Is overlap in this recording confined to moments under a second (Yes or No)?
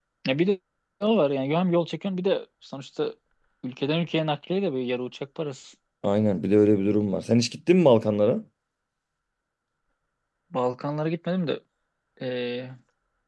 Yes